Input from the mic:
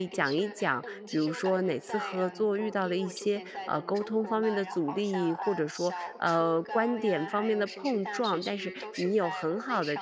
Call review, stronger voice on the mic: user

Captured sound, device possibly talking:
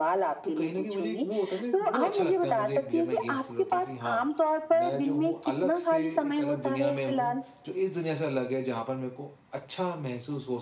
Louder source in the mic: echo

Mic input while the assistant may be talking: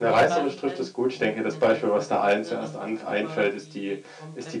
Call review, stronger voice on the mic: echo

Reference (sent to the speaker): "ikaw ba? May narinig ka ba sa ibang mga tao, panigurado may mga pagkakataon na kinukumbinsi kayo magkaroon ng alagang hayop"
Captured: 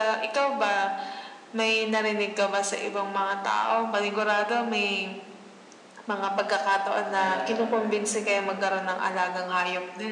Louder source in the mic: echo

